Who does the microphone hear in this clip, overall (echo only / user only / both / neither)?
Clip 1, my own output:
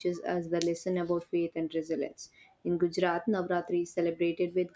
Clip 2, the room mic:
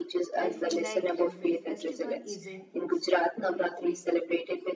both